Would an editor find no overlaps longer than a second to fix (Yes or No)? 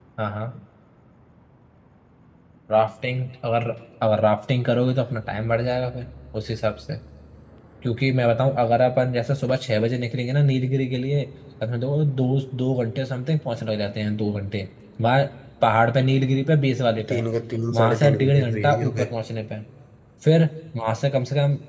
No